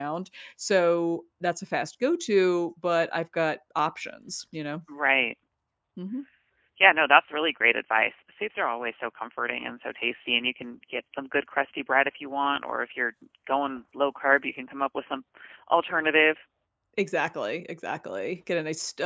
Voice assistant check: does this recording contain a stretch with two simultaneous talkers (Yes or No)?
No